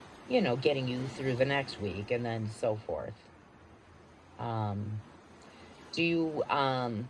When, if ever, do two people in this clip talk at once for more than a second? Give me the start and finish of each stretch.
none

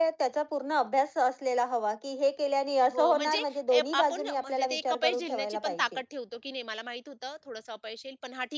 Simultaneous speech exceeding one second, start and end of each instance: 3.8-6.0

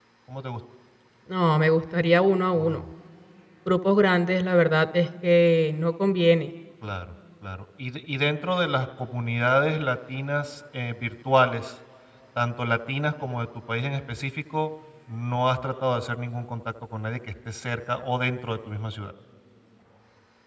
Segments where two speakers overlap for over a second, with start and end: none

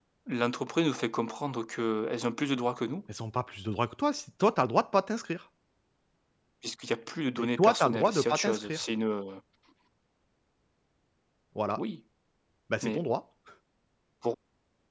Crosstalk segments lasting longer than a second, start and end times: 7.4-8.8

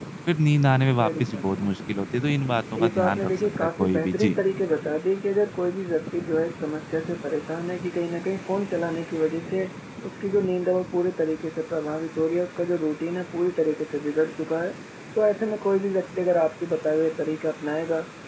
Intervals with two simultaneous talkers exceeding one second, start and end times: 2.8-4.4

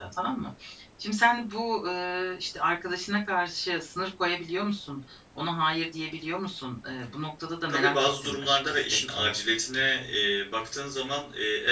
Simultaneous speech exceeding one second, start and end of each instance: 7.7-9.3

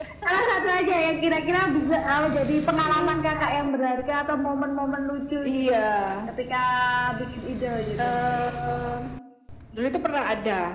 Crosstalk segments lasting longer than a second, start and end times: none

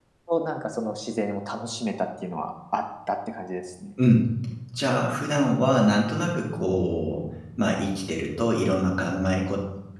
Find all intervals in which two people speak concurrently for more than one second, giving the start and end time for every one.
none

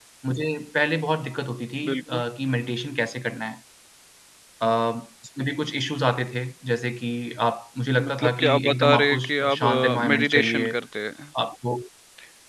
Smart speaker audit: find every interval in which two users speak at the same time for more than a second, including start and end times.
8.1-10.7

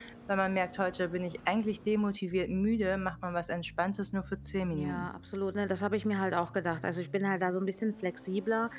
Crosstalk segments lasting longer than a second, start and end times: none

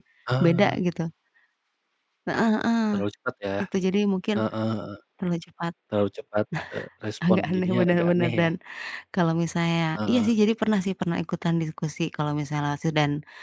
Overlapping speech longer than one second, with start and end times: 7.3-8.5

